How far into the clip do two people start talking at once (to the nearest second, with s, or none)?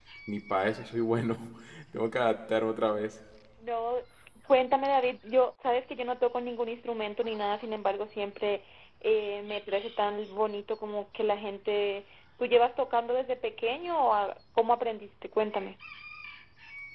none